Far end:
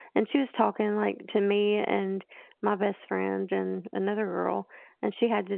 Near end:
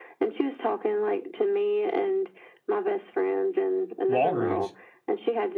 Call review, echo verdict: present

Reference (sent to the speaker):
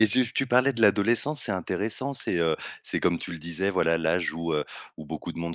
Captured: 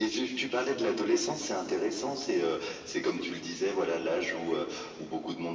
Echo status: present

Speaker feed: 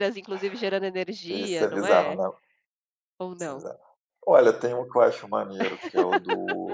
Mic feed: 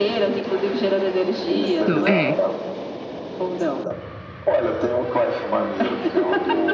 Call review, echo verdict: present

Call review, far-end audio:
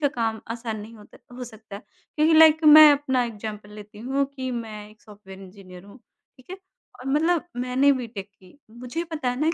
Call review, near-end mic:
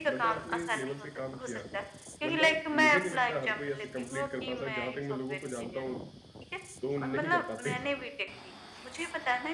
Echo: present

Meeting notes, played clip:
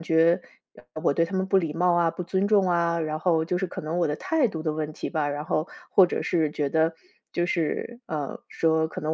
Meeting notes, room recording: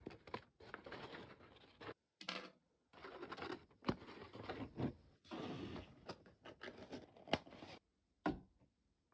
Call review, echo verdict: none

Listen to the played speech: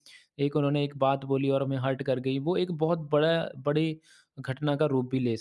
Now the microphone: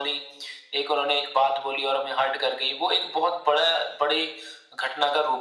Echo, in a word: present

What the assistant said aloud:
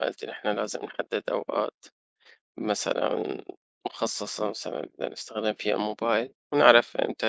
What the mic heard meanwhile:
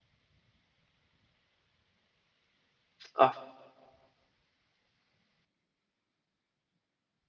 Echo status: none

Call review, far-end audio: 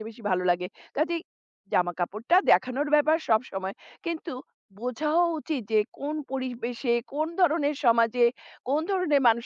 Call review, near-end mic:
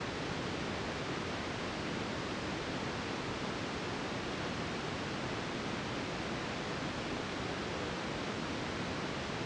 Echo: none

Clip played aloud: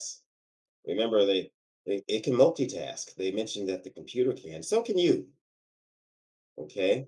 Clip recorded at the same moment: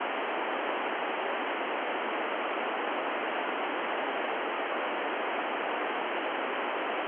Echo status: none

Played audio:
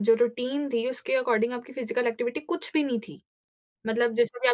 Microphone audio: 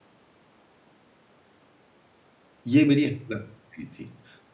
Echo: none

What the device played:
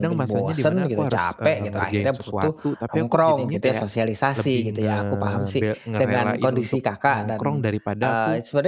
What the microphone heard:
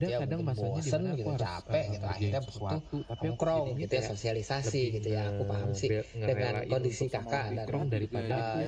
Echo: present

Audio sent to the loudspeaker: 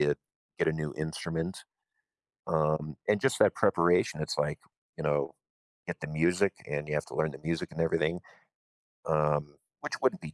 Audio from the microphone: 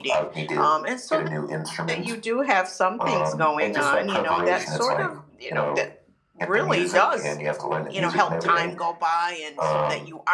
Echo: present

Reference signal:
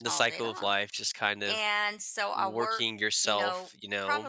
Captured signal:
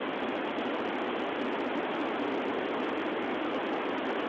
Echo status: none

